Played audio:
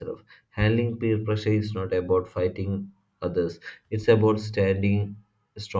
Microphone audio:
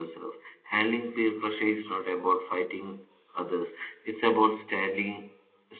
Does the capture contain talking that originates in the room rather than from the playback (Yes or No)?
No